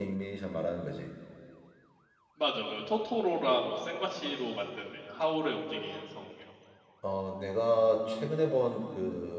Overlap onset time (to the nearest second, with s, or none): none